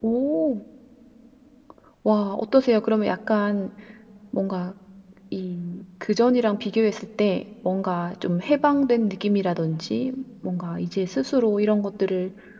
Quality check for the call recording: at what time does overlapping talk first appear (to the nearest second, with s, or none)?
none